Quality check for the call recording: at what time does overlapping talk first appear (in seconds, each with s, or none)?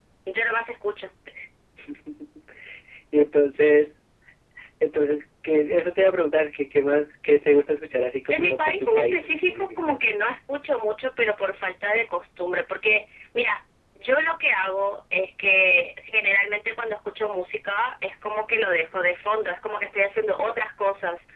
8.3 s